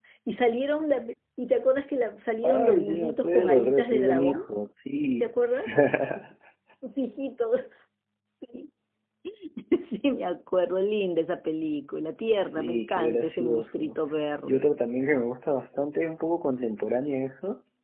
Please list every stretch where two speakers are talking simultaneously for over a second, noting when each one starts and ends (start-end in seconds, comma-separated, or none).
2.4-4.5, 12.4-14.0